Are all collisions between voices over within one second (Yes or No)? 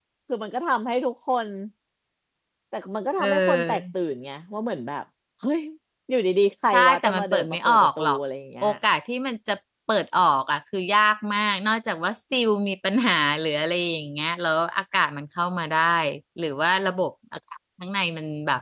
No